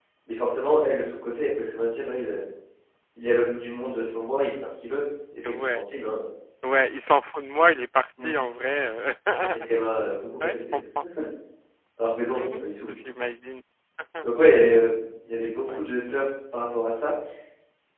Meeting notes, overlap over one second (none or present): none